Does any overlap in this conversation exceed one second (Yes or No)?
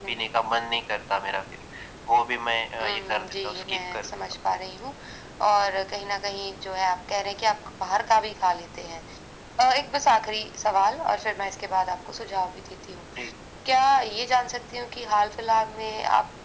Yes